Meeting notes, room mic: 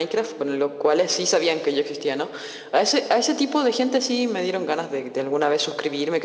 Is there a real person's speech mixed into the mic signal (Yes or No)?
No